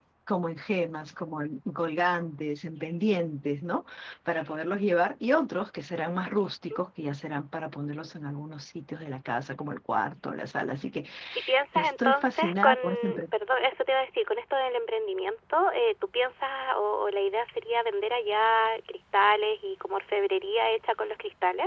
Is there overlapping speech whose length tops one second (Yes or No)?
Yes